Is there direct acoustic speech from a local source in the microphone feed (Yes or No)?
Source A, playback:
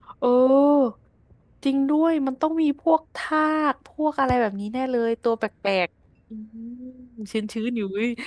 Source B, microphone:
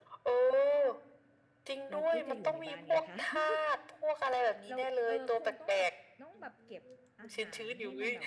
Yes